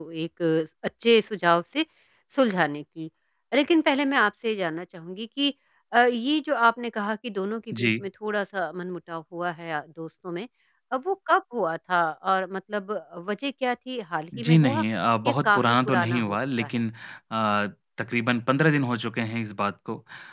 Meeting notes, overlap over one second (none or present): present